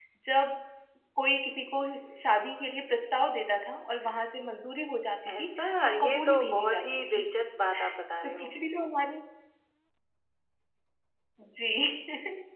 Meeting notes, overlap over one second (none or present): present